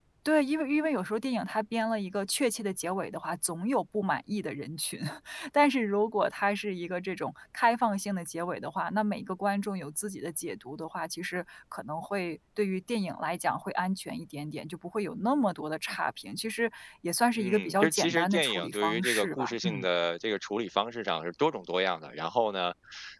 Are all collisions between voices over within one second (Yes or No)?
No